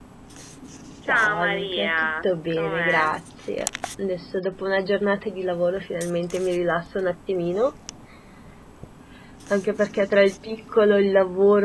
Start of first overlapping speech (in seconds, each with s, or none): 1.1 s